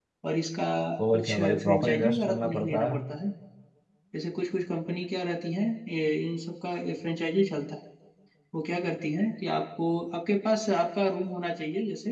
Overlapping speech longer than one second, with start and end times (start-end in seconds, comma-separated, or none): 1.1-3.0